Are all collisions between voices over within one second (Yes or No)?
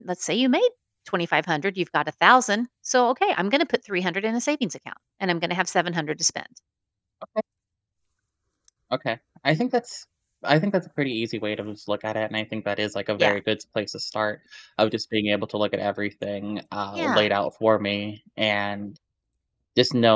Yes